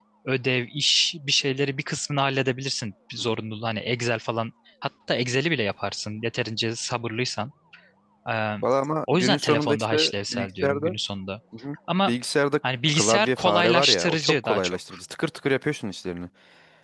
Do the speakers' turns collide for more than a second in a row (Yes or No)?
Yes